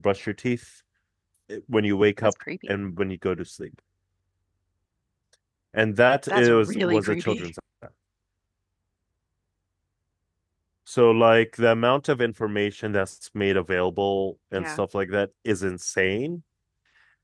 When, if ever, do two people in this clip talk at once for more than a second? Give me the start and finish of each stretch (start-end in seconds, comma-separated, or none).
6.3-7.5